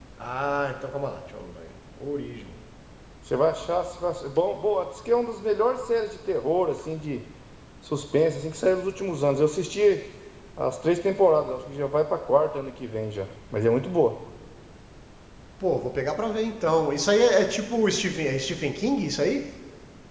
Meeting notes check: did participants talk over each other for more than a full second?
No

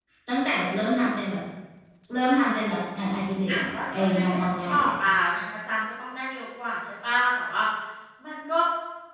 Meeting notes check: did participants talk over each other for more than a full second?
Yes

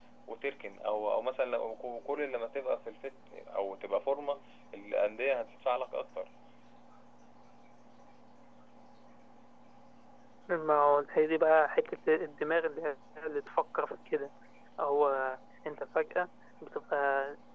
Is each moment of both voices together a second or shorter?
Yes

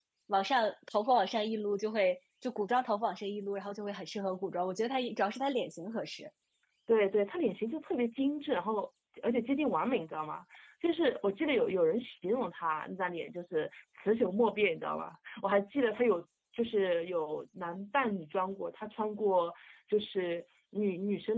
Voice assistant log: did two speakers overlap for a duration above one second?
No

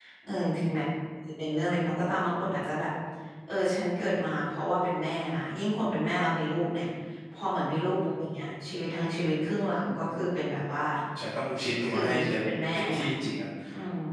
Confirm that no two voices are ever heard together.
No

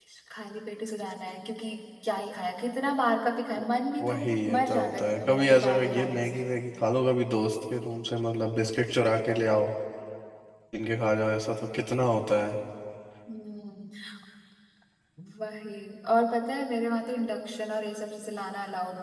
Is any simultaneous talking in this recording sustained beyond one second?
Yes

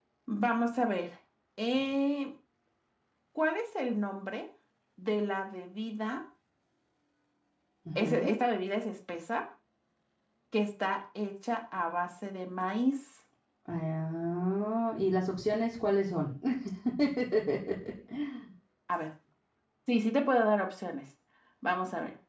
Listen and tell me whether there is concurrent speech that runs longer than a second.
No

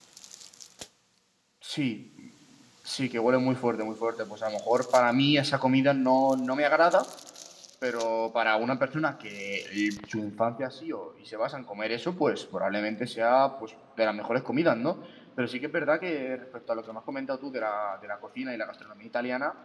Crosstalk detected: No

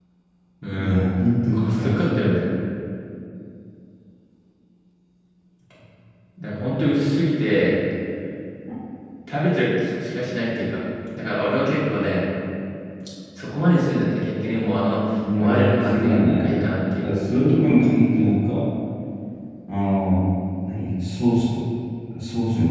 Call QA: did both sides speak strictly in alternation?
No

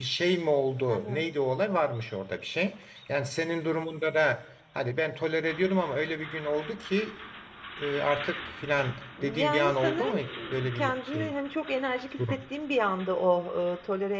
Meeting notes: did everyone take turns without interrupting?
No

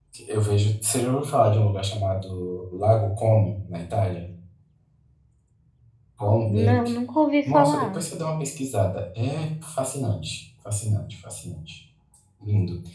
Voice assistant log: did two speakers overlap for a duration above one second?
No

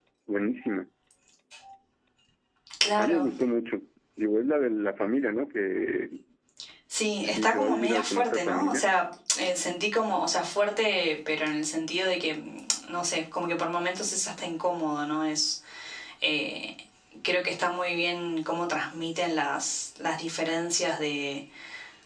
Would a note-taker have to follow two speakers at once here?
Yes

